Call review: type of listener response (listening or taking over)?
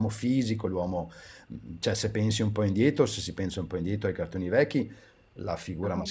listening